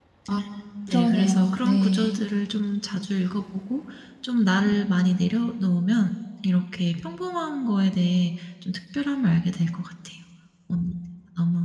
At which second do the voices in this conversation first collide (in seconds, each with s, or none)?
0.9 s